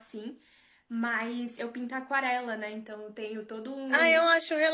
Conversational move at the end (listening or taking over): taking over